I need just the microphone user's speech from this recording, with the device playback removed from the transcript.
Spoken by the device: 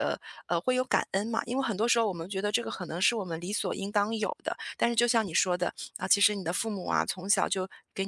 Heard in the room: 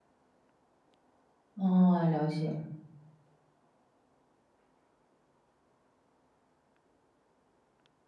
哦，了解，

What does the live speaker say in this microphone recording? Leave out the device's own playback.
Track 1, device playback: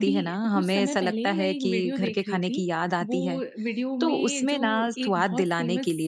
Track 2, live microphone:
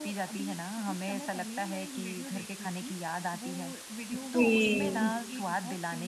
जी,

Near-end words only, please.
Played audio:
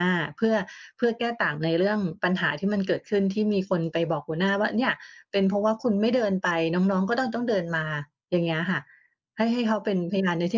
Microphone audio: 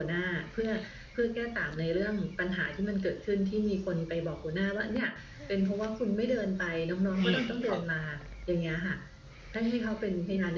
อืมครับ

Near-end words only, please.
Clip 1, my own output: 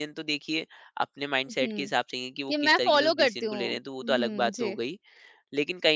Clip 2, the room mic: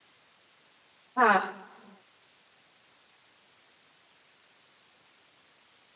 हाँ।

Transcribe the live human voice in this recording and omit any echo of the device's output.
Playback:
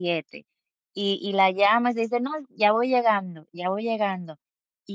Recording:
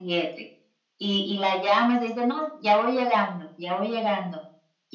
none

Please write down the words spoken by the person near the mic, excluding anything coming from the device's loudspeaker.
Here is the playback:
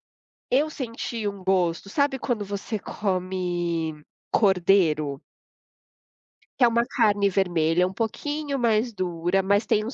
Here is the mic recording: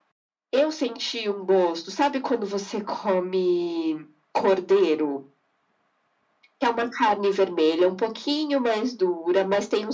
none

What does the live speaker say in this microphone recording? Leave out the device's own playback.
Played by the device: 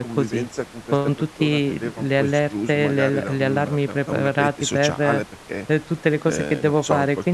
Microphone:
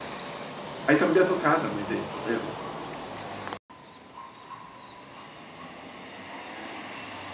Hai cambiato casa m'hai detto, vero?

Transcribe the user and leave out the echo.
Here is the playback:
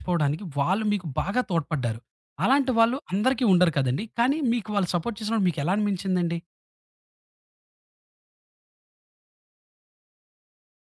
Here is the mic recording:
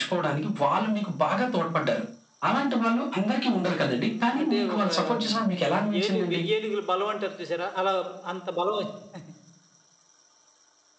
హ్మ్. అంటే ఒక హ్మ్. ఏను వెయ్యేనుగులు బలం అంటారు చూసారా? అలా అంత బలం వచ్చి-

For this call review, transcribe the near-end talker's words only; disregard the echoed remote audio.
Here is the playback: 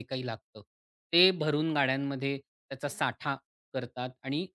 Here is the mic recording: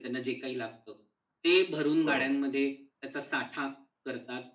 बरोबर

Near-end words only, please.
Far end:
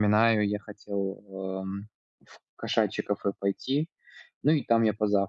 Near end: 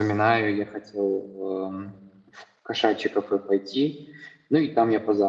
none

